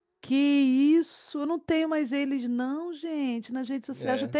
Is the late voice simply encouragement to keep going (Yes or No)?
No